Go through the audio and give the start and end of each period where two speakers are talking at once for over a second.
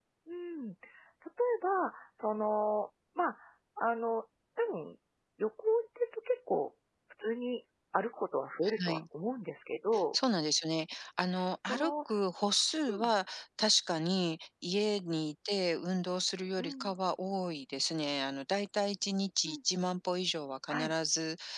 none

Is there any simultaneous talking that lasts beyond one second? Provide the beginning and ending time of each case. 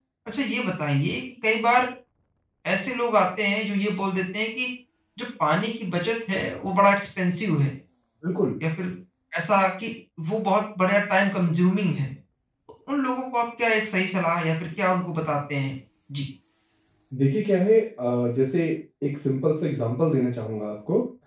none

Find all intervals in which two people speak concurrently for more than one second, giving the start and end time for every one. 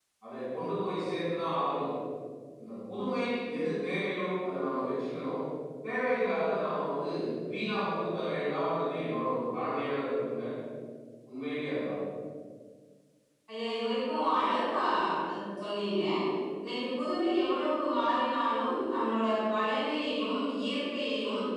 none

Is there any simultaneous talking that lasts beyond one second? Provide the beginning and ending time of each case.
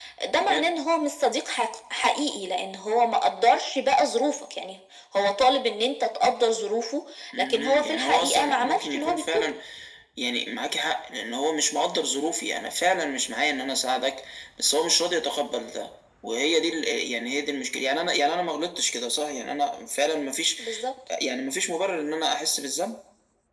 7.4-9.4

